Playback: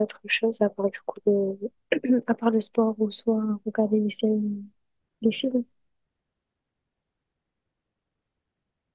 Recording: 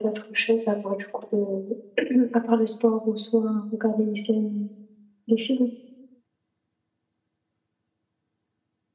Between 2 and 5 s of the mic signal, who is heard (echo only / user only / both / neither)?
echo only